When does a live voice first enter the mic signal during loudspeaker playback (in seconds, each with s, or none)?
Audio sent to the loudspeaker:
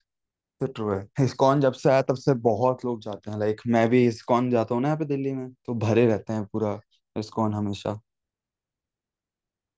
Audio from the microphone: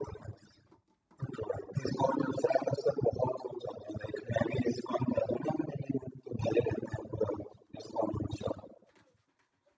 none